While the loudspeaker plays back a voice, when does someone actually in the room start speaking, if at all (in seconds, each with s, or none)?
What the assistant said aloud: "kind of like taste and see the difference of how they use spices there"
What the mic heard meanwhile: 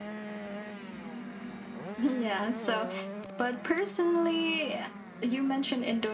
2.0 s